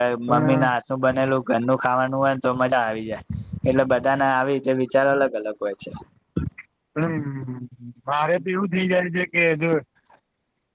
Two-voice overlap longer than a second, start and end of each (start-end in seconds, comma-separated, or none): none